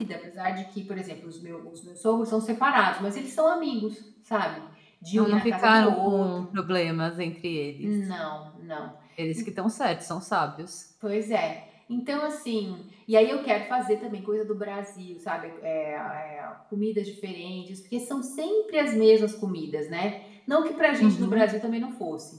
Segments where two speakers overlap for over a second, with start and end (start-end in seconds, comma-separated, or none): 5.1-6.6